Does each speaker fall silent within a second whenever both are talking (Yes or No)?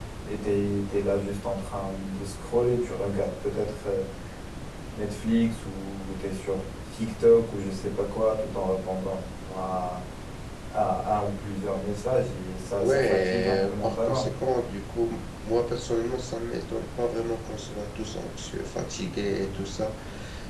No